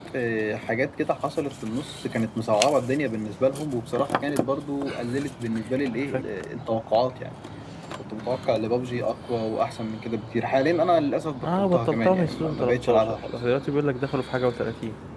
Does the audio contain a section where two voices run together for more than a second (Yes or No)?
Yes